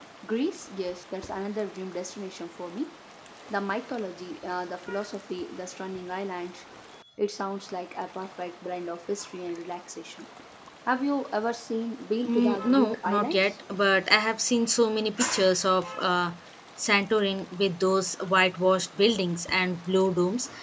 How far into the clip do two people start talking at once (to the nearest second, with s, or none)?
12 s